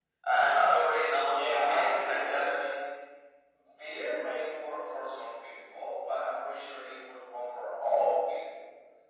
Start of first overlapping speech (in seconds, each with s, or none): 1.2 s